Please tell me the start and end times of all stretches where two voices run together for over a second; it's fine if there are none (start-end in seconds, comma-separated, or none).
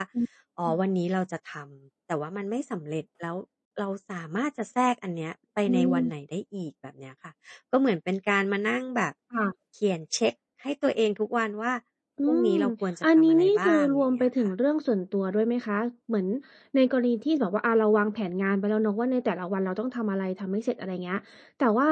13.0-14.5